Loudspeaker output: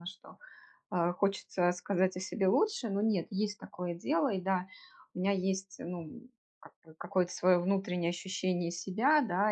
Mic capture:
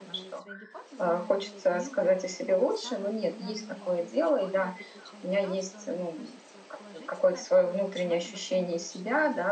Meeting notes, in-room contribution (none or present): present